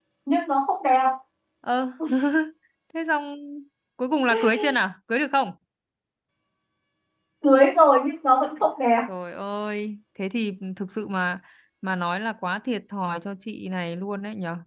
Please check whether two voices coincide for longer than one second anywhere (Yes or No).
No